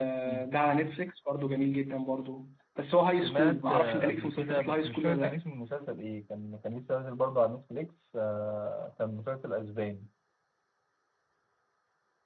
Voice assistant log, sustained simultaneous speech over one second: present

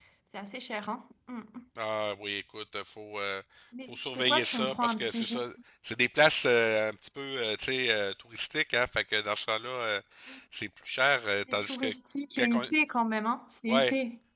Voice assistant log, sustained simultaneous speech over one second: present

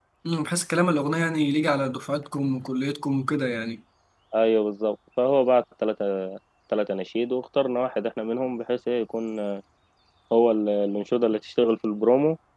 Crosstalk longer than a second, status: none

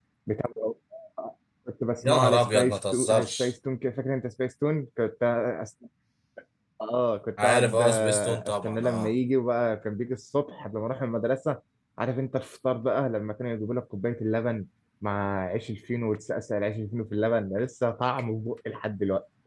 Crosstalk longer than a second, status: present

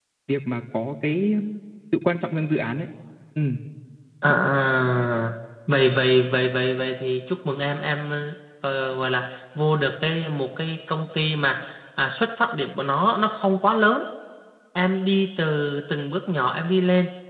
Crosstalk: none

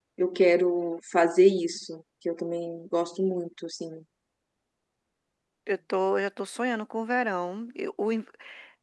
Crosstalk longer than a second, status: none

